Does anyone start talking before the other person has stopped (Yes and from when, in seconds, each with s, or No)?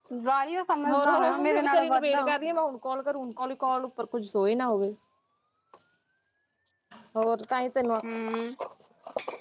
Yes, from 0.9 s